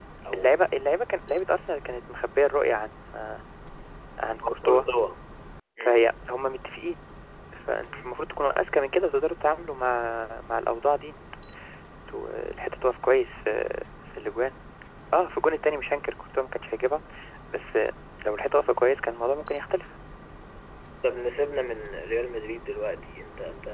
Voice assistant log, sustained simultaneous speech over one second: none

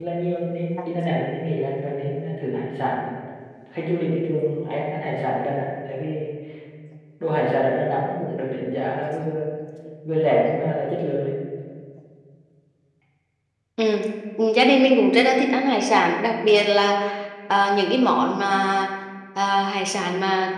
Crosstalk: none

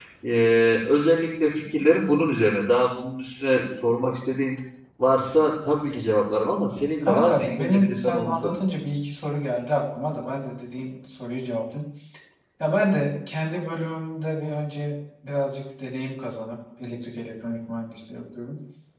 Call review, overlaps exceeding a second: present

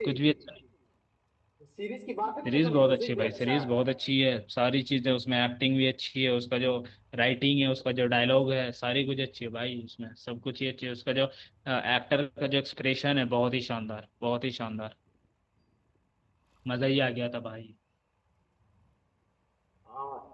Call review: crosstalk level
present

